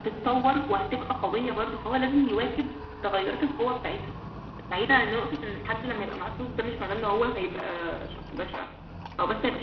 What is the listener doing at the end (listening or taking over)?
listening